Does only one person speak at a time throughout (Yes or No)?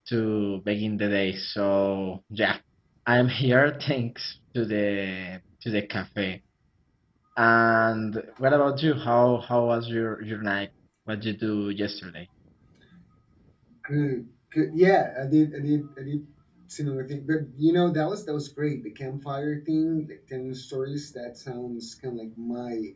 Yes